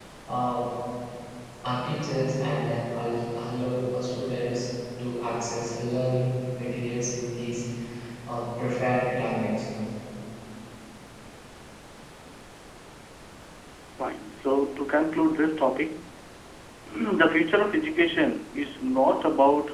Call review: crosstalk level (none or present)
none